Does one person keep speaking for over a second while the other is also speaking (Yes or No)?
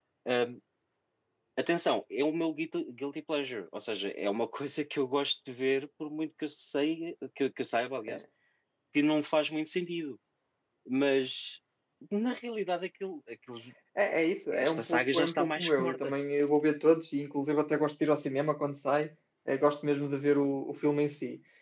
Yes